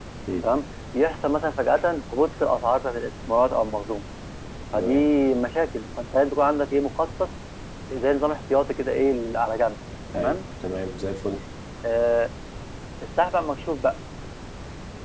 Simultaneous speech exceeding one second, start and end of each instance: none

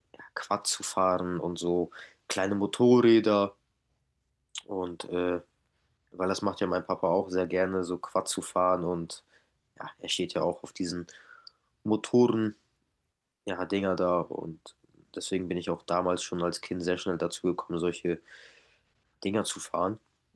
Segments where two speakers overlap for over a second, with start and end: none

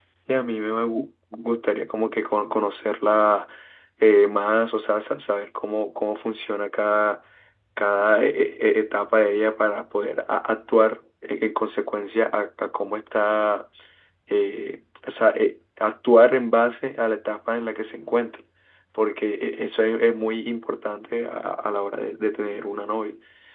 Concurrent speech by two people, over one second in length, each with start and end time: none

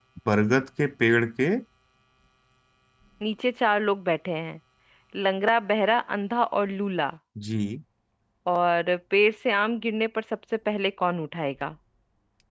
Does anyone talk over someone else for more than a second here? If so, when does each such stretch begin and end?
none

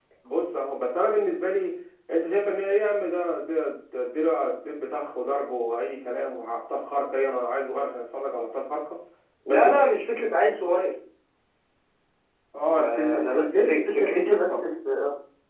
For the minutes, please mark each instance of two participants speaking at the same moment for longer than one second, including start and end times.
12.7-14.6

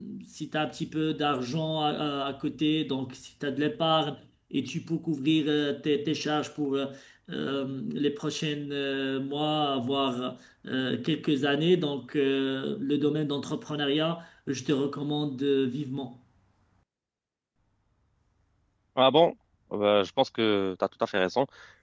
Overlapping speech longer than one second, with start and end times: none

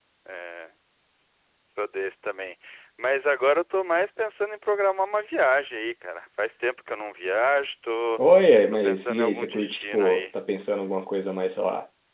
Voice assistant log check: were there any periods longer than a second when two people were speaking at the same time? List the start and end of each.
8.8-10.2

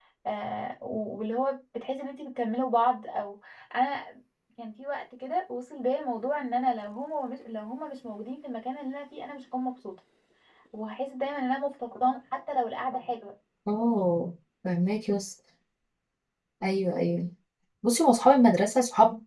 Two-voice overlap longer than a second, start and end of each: none

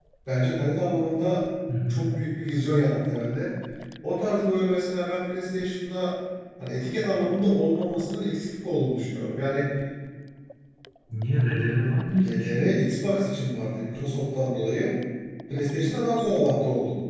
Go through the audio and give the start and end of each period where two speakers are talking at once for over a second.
none

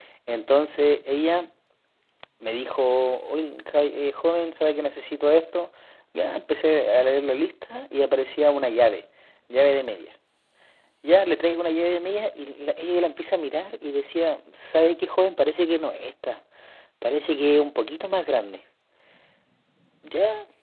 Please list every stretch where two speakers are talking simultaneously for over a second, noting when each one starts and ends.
none

